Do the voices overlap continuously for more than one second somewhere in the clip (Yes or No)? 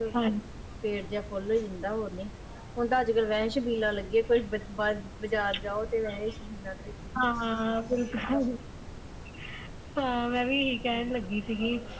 No